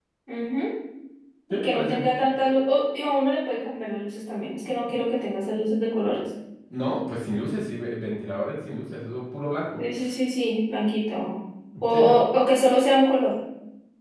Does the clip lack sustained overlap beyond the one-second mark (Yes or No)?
Yes